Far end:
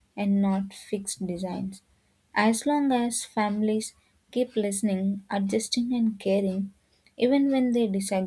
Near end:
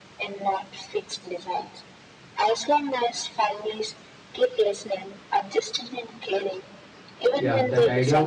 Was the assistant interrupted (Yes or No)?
Yes